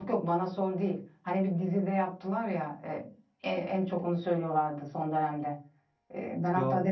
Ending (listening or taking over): listening